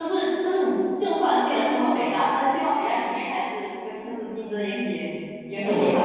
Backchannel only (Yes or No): No